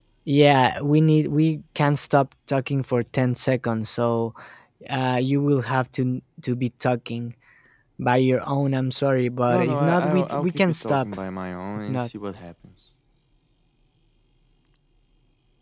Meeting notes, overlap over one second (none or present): present